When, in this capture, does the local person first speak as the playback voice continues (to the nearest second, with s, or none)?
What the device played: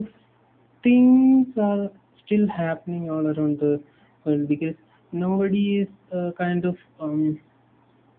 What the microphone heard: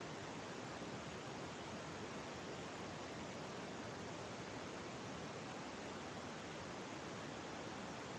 none